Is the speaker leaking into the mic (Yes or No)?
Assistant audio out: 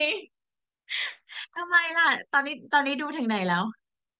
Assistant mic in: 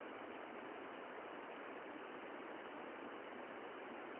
No